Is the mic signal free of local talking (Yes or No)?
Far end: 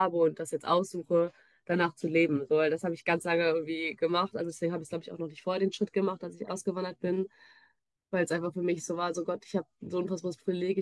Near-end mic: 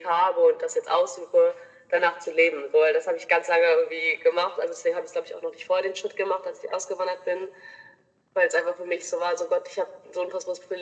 Yes